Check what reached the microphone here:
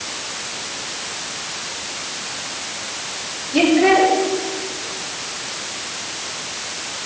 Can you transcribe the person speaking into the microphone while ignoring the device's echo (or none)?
Bir de